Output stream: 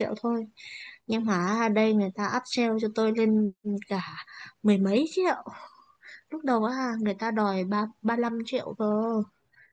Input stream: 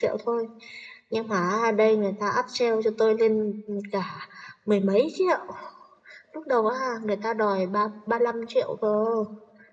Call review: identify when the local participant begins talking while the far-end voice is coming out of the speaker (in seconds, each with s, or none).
none